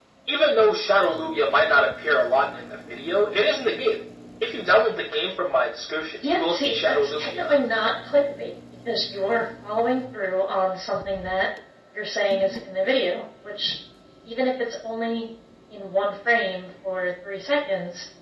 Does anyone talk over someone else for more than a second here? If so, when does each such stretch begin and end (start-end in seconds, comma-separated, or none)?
6.2-7.6